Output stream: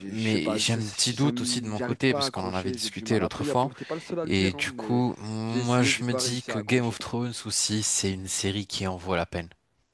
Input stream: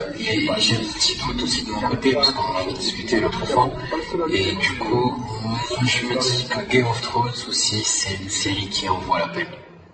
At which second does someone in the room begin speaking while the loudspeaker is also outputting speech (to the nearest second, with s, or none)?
none